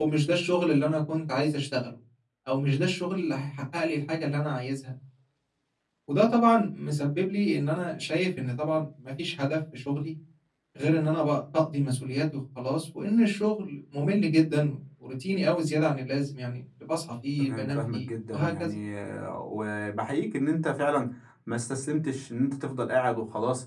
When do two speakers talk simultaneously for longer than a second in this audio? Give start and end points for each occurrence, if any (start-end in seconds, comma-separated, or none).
17.4-18.7